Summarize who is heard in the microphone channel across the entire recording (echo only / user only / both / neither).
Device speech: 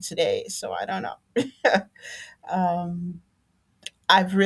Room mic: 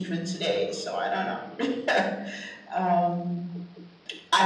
echo only